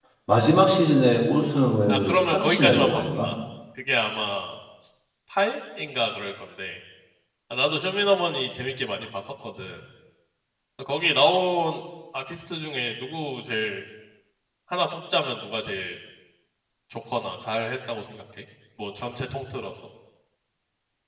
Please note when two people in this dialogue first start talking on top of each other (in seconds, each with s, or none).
1.9 s